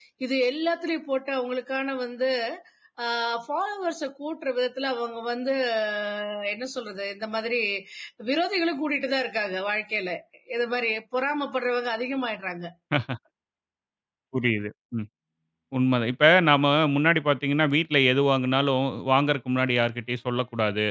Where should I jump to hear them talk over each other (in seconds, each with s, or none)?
none